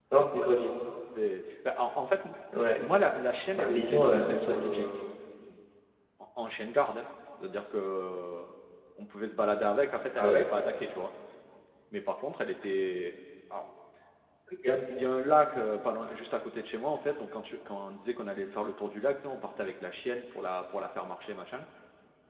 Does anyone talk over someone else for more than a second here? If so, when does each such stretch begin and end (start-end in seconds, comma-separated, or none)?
3.6-4.8